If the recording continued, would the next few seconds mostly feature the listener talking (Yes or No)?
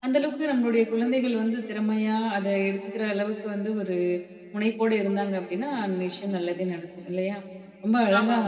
No